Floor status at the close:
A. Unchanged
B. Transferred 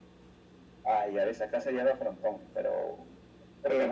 B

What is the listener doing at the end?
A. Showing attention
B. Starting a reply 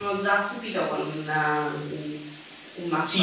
B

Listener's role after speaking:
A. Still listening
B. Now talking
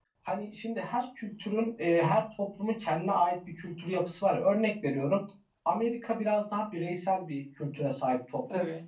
A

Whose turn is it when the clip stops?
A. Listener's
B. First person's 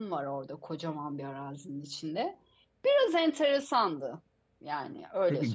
A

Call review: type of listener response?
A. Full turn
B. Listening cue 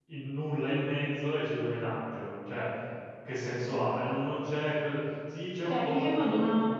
A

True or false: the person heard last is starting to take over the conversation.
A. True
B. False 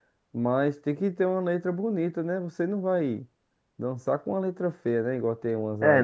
A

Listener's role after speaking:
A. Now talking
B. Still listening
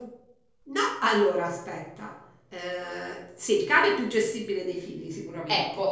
B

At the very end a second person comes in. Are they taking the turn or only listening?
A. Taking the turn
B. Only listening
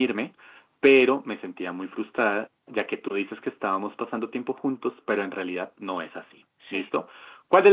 B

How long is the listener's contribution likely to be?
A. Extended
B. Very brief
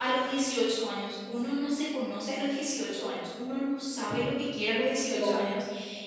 B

